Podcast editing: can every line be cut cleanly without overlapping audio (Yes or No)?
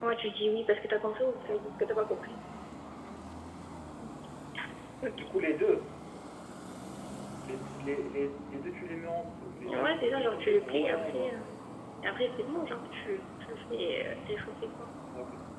No